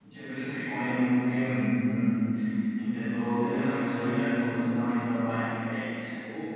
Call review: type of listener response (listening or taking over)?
taking over